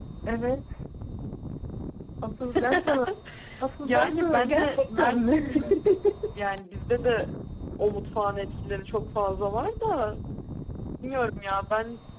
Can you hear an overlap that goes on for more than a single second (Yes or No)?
Yes